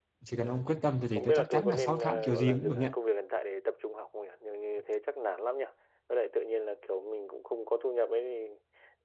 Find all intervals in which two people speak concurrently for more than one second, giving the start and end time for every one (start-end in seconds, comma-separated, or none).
1.1-2.9